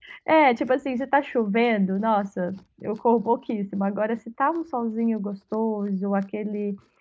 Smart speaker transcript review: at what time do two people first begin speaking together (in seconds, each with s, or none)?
none